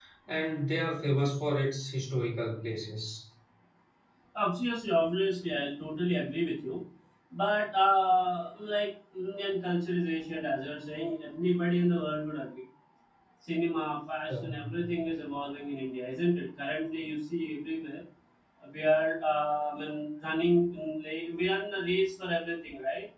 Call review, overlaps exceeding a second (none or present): none